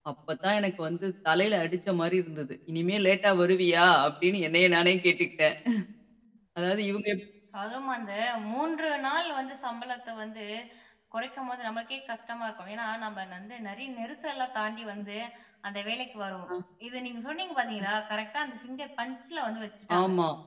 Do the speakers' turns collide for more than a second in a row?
No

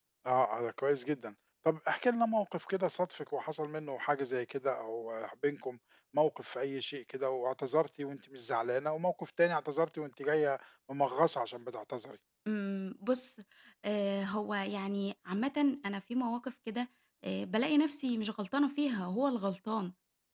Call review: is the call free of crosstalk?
Yes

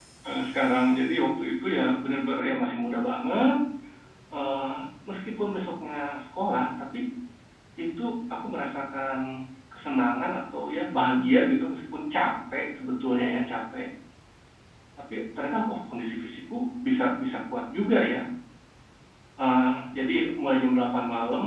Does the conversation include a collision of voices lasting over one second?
No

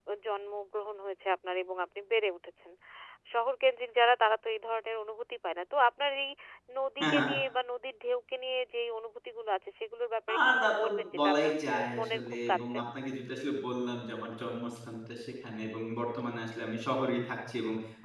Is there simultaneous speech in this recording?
Yes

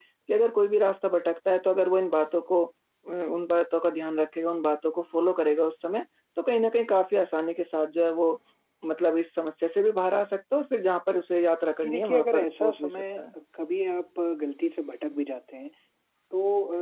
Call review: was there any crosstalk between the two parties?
Yes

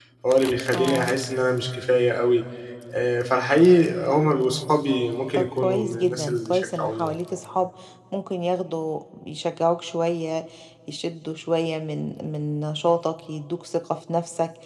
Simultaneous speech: Yes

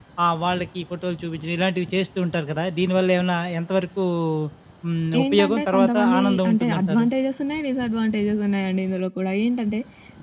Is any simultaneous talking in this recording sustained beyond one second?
Yes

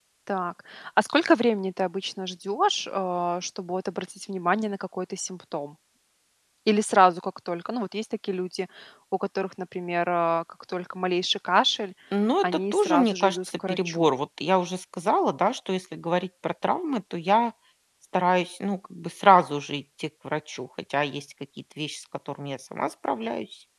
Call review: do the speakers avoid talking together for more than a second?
No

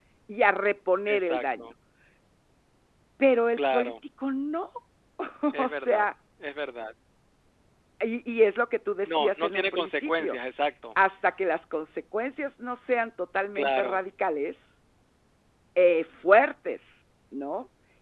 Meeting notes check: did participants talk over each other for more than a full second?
Yes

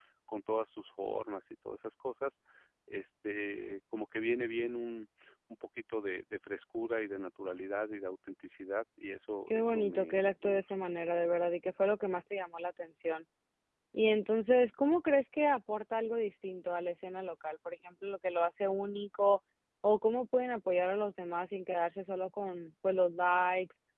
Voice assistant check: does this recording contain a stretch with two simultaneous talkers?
Yes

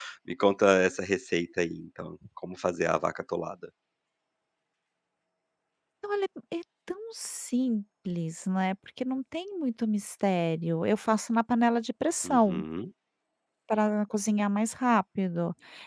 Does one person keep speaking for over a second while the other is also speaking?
No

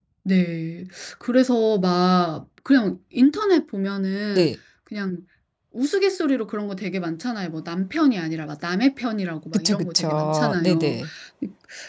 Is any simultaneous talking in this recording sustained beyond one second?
Yes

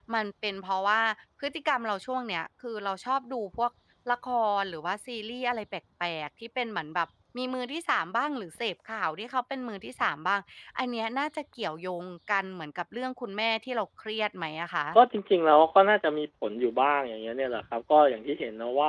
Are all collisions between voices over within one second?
Yes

